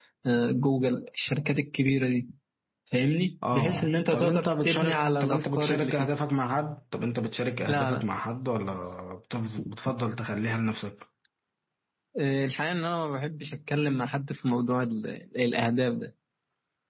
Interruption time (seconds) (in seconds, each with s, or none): 3.5 s